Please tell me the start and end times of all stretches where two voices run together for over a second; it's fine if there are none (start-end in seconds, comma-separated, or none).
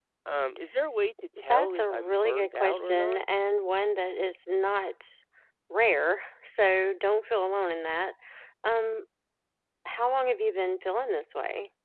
1.5-3.2